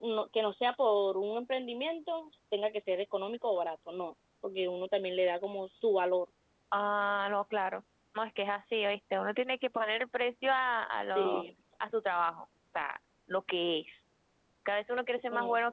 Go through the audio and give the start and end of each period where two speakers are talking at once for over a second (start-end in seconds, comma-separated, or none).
none